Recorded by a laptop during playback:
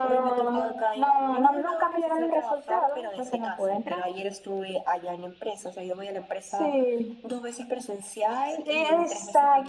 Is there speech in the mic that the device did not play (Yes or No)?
No